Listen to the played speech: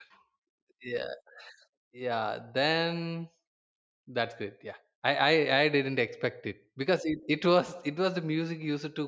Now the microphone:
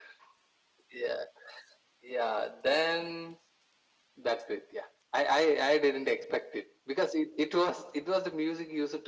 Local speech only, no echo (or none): none